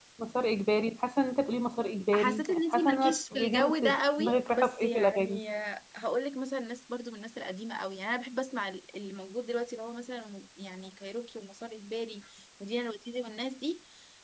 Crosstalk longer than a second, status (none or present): present